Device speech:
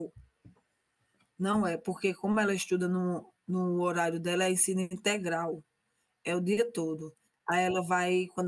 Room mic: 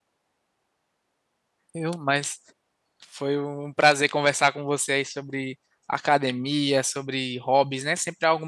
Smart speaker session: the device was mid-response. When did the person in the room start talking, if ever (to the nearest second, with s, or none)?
2 s